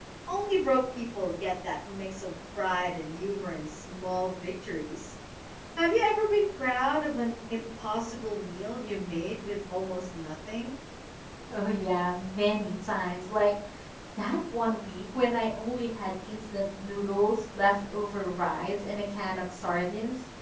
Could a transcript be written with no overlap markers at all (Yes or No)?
Yes